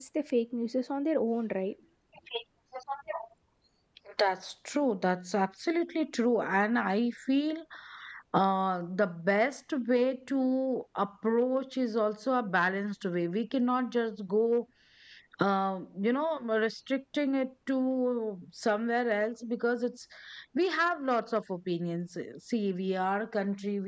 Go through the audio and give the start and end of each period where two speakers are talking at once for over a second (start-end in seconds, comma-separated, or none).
none